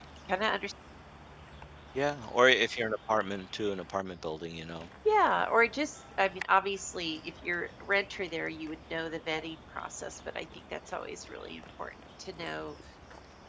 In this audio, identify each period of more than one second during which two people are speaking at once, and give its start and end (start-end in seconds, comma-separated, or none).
none